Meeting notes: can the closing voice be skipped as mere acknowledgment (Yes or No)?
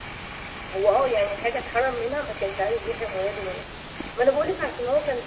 Yes